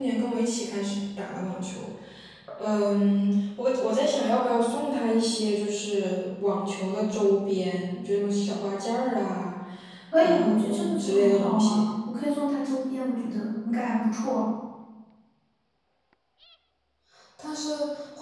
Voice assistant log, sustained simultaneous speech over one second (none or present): present